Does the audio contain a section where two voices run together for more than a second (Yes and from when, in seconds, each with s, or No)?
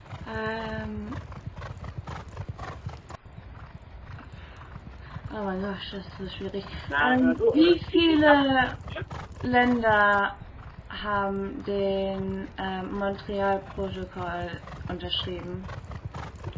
Yes, from 6.9 s